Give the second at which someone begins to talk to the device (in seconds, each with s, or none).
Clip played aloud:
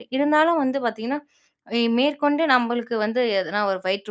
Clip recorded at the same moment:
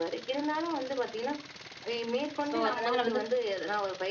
2.5 s